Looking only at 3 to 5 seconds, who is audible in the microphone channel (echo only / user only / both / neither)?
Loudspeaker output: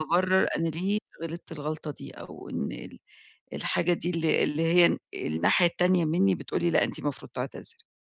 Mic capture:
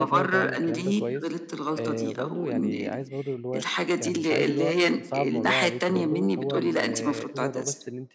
both